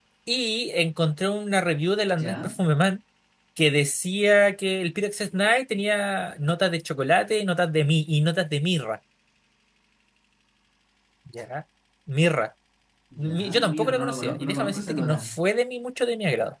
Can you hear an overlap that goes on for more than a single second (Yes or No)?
Yes